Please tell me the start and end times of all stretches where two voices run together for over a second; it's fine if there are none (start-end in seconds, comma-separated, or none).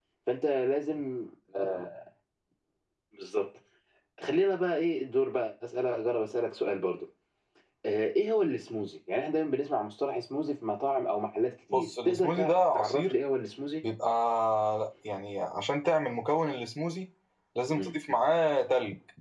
11.7-13.1